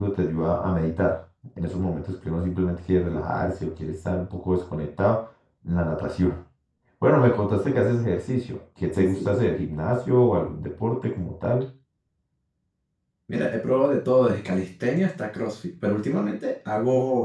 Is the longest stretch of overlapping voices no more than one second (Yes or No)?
Yes